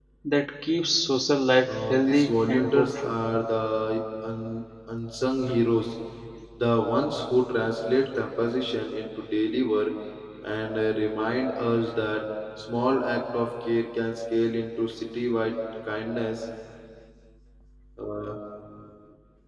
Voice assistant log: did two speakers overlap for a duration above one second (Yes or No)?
Yes